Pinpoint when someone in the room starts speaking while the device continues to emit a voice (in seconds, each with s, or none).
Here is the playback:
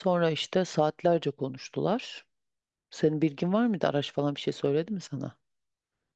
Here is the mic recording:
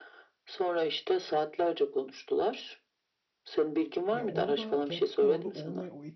4.1 s